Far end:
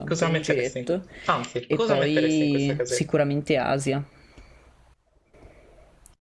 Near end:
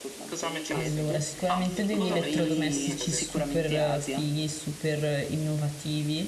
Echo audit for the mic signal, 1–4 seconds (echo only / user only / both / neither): both